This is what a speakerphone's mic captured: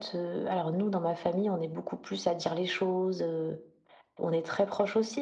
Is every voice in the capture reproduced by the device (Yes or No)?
Yes